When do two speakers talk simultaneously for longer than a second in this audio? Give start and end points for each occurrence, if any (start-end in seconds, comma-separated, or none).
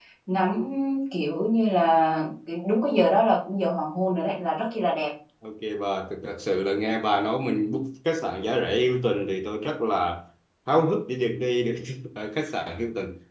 none